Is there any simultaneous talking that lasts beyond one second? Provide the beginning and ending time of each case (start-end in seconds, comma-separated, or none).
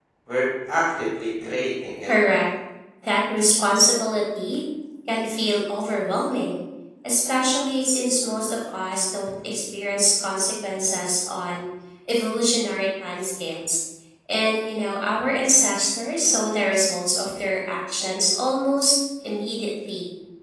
none